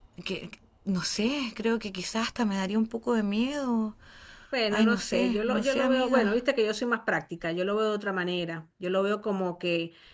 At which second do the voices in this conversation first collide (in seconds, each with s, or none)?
4.7 s